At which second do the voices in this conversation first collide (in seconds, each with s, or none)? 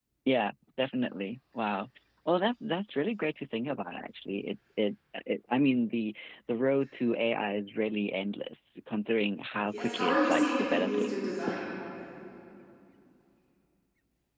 9.7 s